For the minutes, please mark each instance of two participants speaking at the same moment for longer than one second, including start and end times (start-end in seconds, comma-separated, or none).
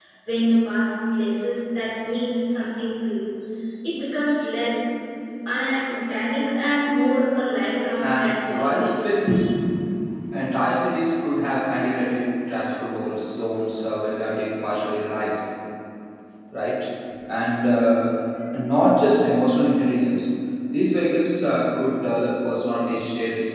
8.0-9.2